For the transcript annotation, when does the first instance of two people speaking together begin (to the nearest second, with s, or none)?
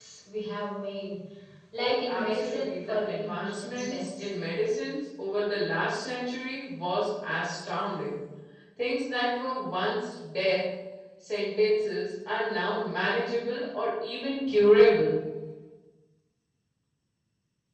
2 s